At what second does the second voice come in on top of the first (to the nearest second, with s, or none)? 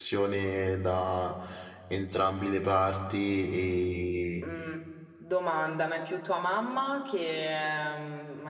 none